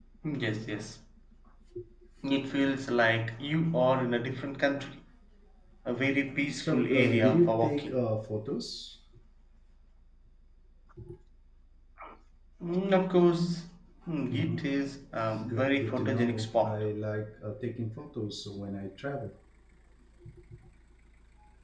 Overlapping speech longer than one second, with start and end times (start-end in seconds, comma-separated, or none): 6.6-8.0, 15.5-16.8